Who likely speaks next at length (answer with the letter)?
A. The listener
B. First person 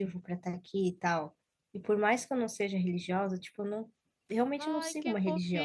A